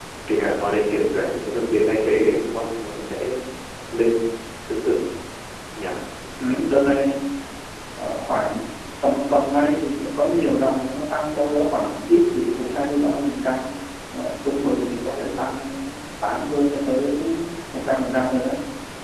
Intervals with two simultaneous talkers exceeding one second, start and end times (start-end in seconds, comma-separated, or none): none